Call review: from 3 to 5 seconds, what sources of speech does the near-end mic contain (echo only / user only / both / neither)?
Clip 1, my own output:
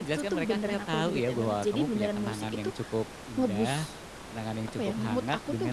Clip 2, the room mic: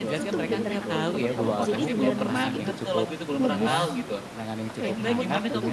both